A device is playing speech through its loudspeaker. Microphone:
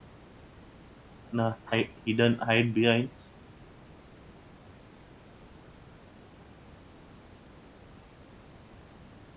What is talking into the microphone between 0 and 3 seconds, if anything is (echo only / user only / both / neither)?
user only